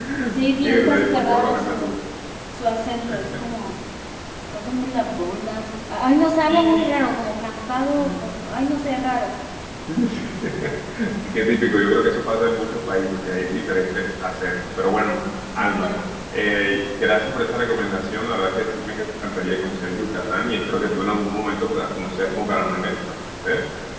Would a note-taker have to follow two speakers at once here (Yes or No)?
Yes